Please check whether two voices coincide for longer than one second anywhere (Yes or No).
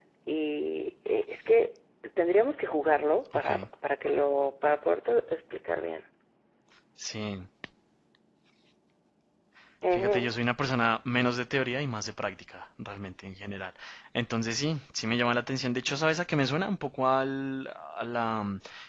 No